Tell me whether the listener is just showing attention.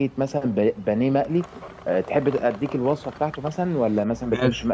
Yes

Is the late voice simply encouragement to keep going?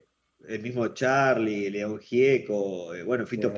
Yes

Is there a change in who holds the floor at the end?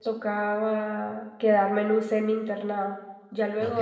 No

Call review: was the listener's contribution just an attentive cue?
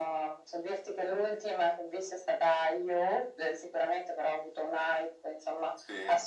Yes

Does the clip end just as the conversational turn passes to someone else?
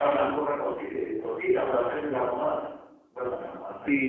Yes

